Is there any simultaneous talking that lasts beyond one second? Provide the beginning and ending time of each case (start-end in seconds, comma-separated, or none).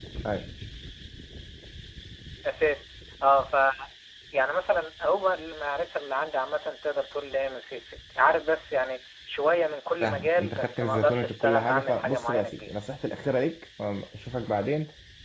10.0-12.7